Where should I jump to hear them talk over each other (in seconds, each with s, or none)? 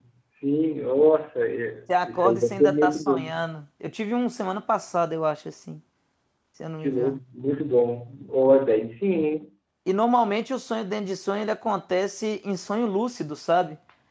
1.9 s